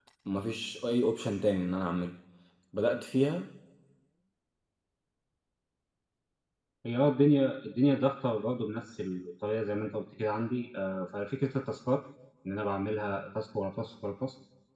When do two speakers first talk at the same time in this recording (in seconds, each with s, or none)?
none